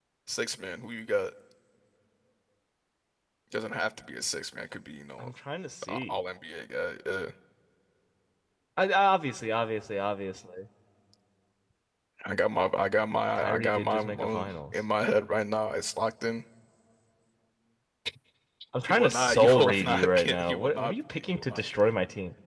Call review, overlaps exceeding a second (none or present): present